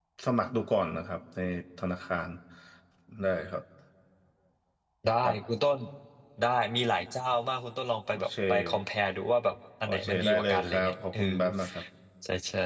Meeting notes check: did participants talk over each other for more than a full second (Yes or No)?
Yes